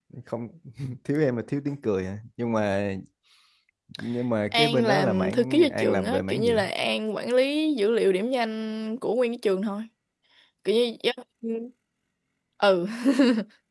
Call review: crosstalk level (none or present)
present